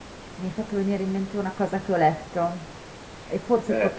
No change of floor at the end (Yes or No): Yes